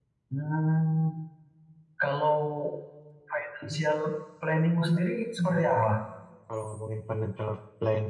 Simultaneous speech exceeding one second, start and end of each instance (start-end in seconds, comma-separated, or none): none